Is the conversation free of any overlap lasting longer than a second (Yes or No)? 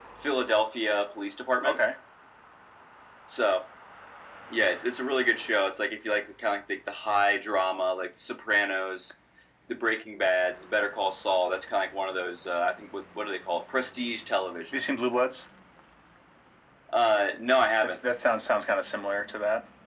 Yes